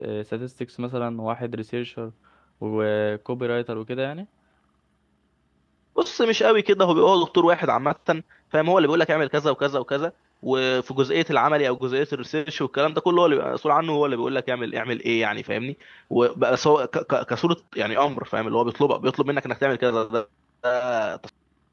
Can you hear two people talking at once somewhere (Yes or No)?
No